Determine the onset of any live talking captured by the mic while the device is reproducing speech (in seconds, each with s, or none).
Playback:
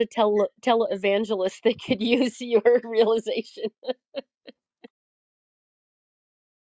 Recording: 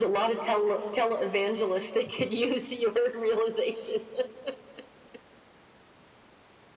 none